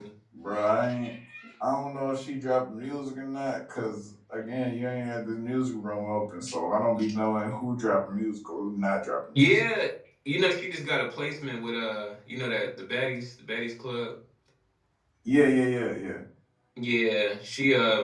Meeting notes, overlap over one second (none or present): none